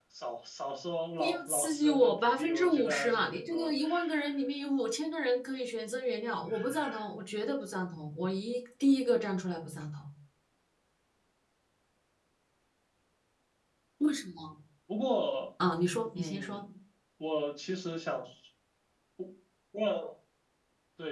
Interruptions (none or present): present